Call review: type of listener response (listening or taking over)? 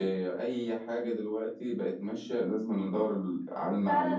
taking over